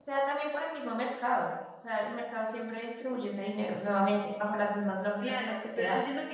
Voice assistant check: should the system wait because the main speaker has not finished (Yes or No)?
No